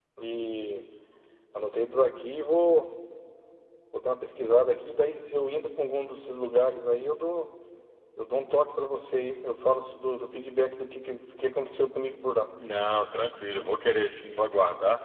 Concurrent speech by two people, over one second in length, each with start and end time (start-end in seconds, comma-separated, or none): none